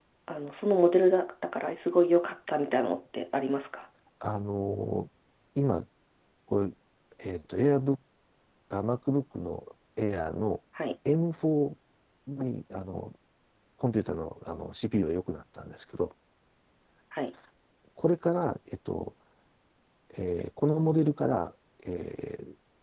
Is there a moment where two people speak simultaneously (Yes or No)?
No